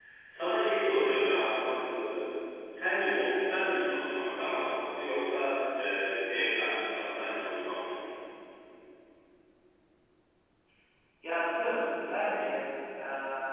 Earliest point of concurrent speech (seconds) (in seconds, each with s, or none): none